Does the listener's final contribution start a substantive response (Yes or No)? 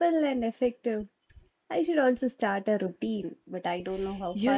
Yes